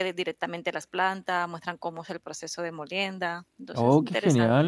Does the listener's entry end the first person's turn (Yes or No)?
Yes